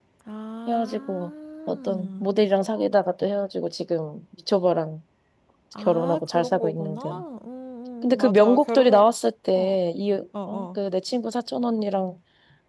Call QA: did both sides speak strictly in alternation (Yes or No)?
No